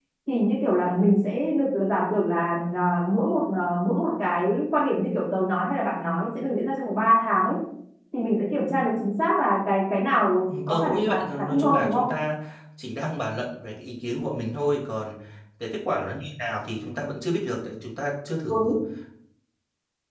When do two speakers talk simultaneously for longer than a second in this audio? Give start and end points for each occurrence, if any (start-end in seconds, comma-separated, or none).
10.5-12.0